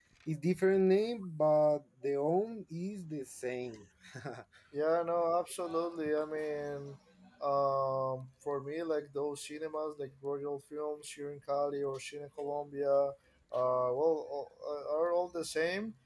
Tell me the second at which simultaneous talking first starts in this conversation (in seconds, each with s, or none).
none